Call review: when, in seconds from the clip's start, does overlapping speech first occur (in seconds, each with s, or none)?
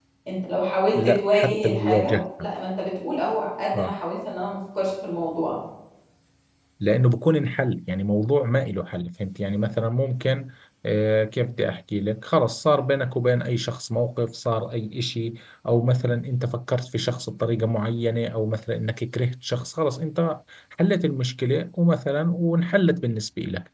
0.9 s